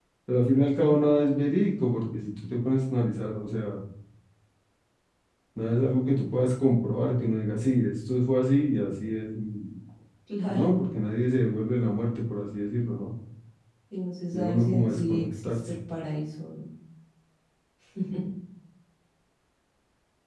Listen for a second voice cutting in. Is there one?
Yes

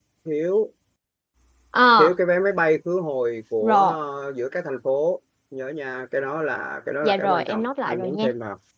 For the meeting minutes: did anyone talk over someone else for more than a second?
Yes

